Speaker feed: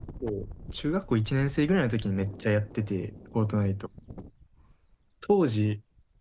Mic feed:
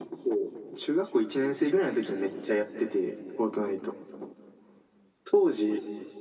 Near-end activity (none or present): none